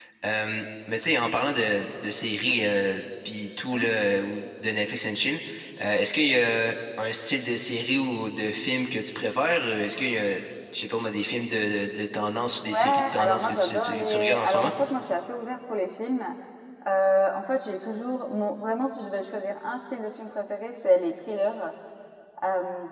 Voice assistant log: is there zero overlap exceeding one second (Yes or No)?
No